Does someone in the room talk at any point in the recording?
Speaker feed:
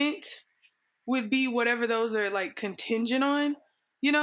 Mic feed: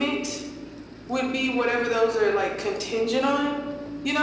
No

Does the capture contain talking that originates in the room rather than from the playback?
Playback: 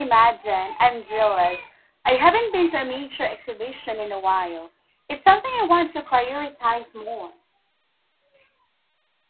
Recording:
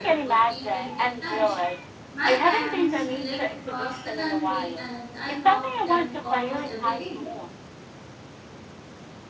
Yes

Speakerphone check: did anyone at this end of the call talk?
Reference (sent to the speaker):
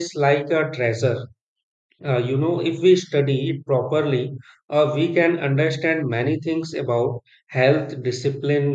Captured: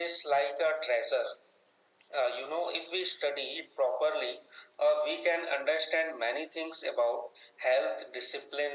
No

